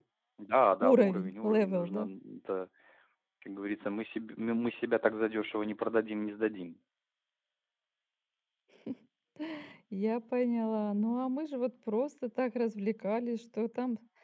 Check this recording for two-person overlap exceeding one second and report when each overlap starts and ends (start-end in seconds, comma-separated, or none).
0.8-2.1